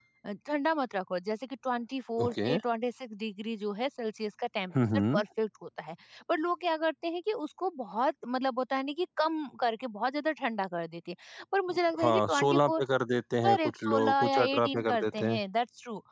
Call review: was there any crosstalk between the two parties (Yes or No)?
Yes